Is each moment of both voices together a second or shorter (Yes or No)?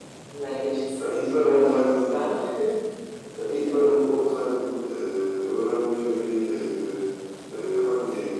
No